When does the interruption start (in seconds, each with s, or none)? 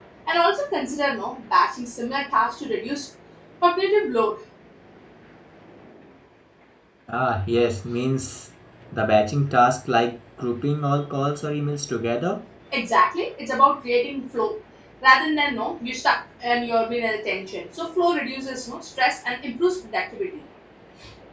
none